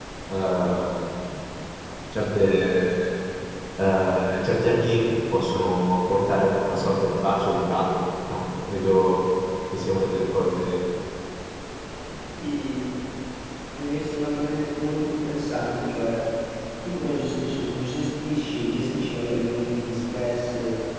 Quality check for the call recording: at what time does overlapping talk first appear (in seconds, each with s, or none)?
none